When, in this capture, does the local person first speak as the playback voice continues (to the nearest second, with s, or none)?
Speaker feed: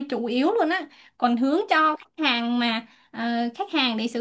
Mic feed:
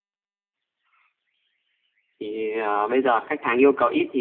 2 s